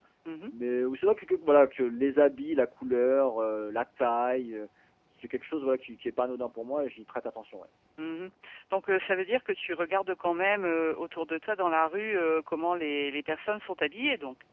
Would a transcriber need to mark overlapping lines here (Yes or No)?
No